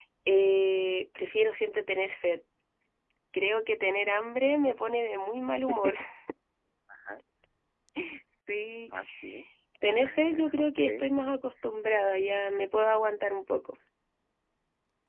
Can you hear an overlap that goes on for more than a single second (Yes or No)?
Yes